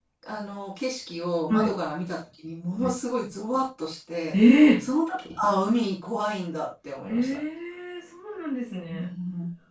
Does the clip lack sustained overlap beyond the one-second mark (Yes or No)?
Yes